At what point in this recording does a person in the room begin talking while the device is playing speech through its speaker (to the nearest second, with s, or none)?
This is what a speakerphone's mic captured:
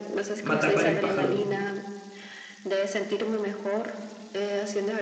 0 s